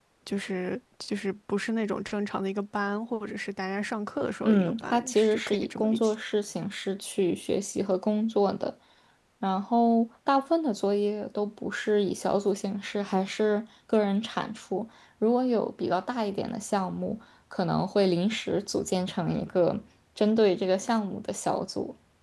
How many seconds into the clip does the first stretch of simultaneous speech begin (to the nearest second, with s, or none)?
4 s